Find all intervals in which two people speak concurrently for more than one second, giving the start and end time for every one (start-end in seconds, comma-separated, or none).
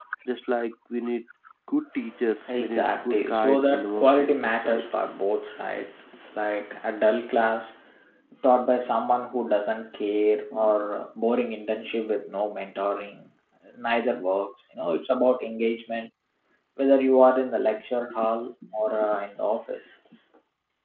2.6-4.9